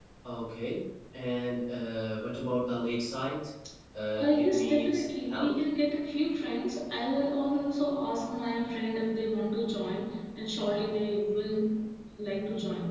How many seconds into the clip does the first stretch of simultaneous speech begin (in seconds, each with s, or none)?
4.2 s